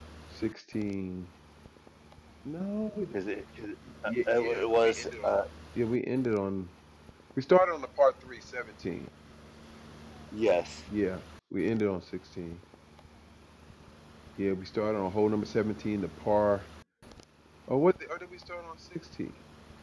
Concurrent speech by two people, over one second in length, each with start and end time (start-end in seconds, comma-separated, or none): 4.1-5.3